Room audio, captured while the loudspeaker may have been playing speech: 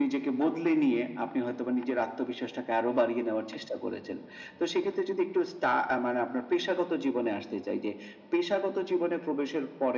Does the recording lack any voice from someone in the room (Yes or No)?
Yes